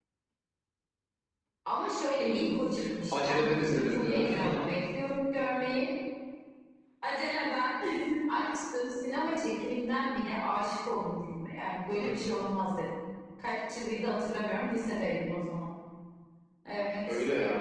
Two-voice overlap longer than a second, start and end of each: 3.1-4.4

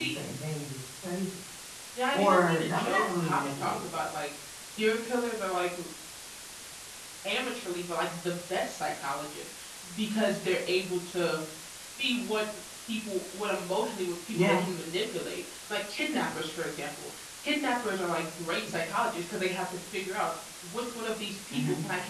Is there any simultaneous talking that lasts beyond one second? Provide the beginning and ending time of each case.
2.1-4.2

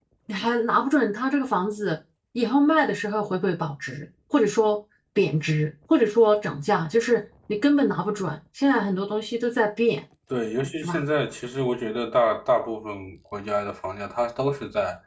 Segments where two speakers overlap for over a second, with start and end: none

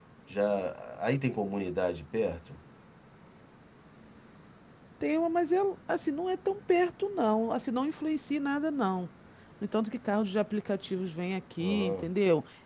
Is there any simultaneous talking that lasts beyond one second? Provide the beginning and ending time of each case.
none

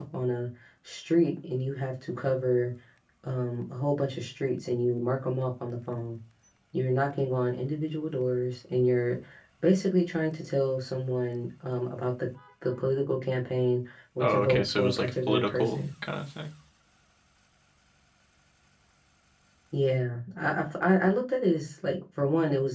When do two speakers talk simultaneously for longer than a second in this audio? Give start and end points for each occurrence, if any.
14.2-15.9

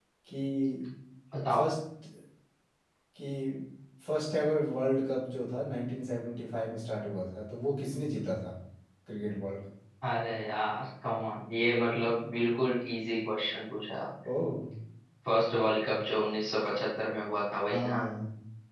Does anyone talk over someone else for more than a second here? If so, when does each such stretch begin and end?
none

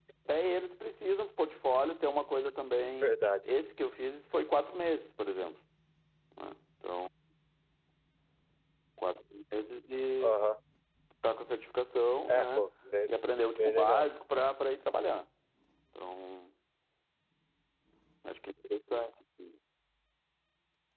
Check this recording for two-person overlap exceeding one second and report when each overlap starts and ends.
none

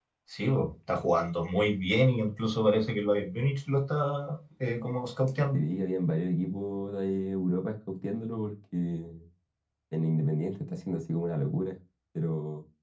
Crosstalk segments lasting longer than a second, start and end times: none

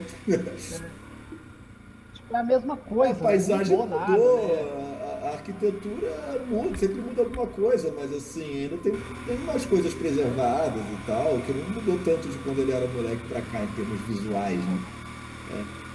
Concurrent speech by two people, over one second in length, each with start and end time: 3.0-4.7

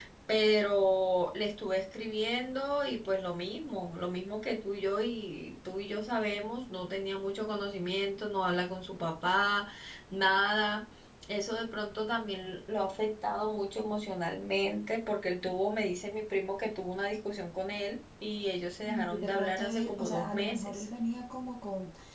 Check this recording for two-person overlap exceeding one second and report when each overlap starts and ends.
18.9-20.8

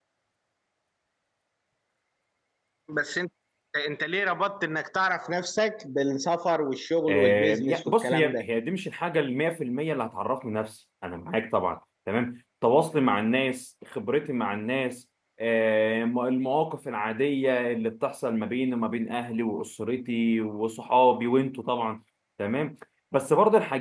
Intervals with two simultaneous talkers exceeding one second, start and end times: 7.1-8.4

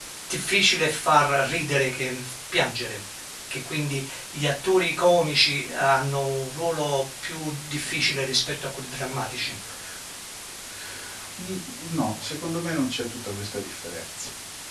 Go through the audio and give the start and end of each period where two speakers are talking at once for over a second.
none

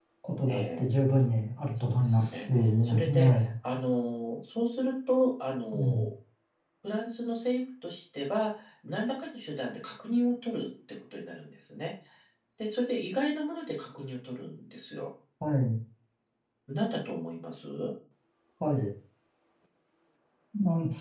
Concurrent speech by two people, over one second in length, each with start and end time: 1.9-3.5

